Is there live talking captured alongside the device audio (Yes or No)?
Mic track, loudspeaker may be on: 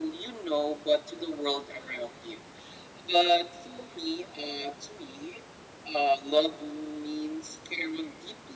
No